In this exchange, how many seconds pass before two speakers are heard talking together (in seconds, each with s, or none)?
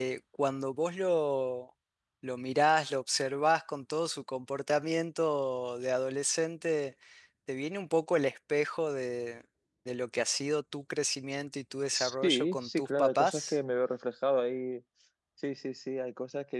11.9 s